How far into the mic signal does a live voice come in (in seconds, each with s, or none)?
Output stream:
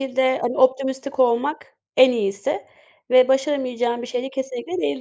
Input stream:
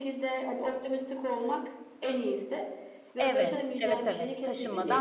3.2 s